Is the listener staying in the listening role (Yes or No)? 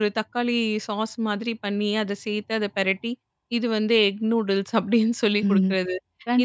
No